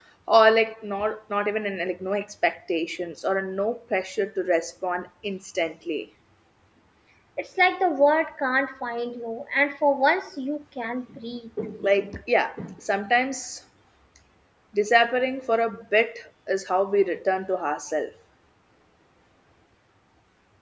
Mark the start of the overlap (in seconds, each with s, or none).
none